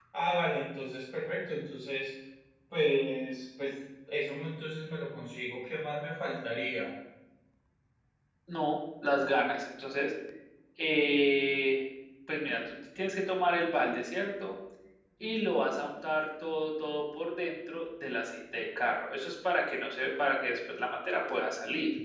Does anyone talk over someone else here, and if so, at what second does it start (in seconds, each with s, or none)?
none